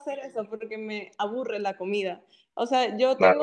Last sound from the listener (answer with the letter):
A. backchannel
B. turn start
A